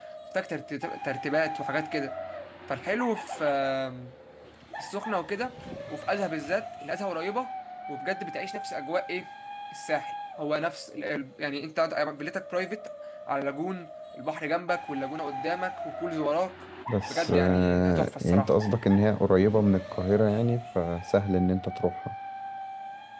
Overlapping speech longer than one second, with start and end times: 17.1-18.5

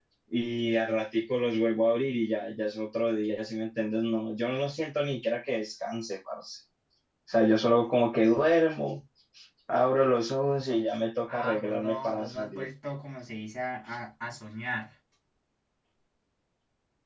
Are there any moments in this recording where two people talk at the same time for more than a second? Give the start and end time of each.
11.3-12.7

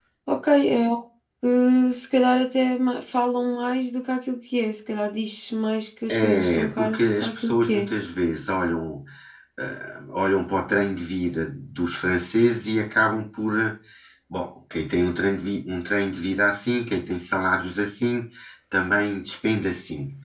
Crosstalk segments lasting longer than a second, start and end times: 6.1-7.9

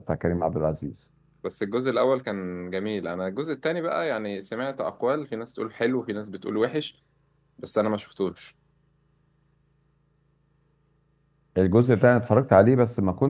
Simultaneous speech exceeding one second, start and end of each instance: none

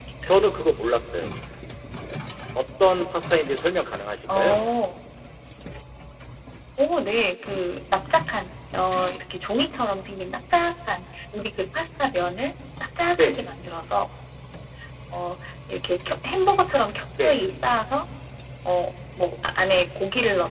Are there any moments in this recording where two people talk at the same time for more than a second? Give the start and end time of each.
none

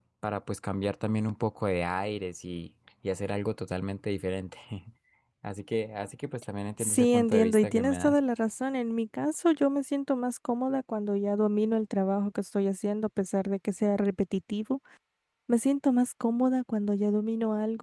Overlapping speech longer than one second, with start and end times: 6.8-8.2

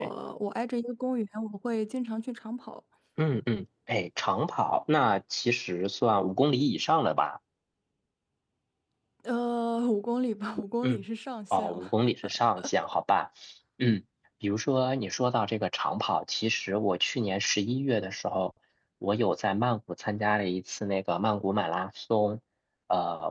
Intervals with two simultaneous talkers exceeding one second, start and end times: none

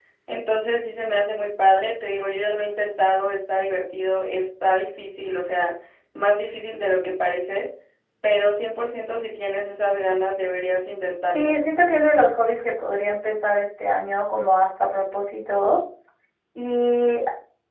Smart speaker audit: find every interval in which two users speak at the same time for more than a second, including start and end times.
none

